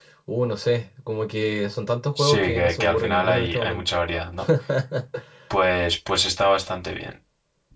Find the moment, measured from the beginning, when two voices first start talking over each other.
2.2 s

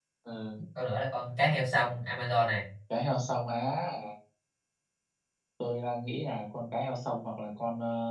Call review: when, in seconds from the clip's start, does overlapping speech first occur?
none

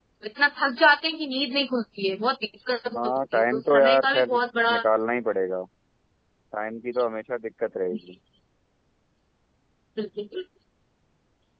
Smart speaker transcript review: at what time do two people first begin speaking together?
2.9 s

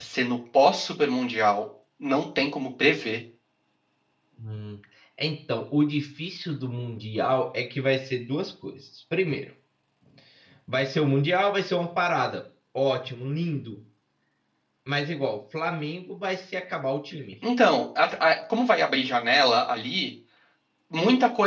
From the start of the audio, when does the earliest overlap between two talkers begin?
none

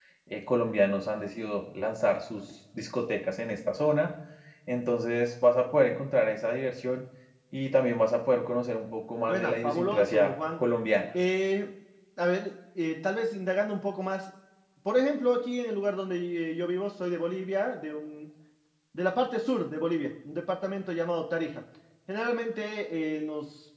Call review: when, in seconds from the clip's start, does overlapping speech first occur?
9.3 s

